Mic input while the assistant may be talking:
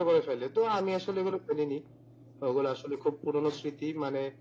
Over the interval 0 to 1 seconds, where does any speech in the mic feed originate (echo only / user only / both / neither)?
echo only